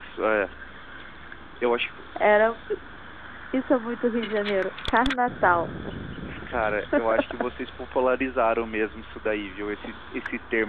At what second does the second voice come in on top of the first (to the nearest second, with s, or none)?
none